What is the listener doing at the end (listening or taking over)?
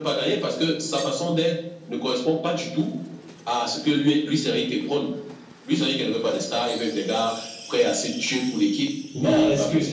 taking over